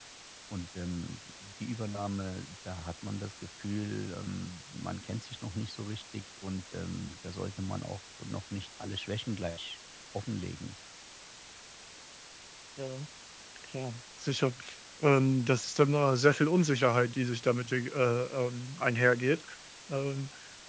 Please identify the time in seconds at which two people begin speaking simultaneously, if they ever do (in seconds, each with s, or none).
none